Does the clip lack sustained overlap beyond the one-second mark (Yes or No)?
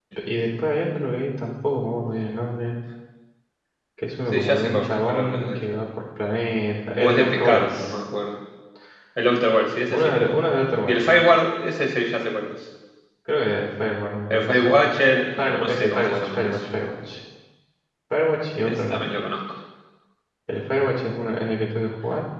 No